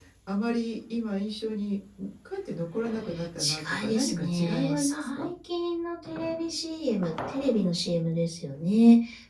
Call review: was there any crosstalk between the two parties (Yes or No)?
Yes